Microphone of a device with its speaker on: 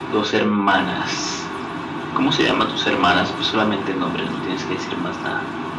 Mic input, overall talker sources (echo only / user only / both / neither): echo only